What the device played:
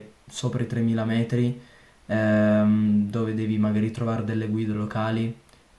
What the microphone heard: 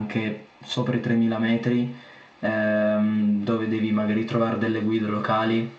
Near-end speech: none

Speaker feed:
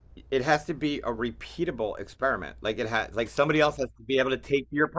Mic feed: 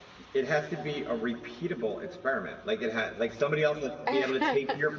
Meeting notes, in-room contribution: present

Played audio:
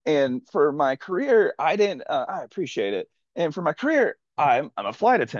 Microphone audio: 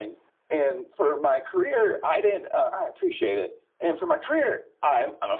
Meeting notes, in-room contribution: none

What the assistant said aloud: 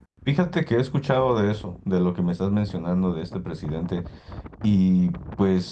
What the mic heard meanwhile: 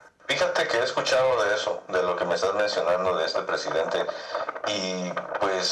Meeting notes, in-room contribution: none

